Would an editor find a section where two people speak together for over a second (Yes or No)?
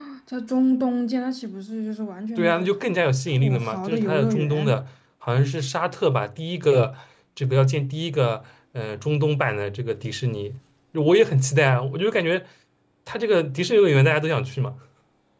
Yes